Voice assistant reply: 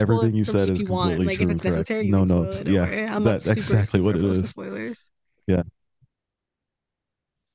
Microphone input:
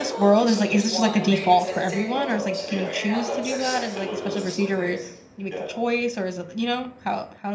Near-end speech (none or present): present